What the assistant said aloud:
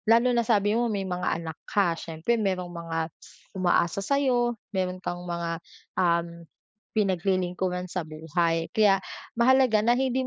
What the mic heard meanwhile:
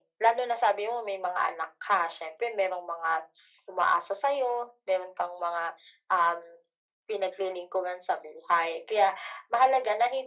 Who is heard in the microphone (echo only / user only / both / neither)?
echo only